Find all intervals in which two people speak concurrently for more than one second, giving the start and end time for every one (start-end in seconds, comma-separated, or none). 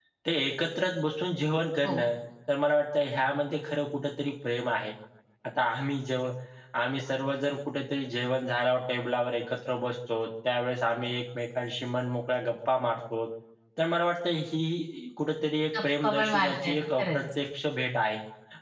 15.8-17.2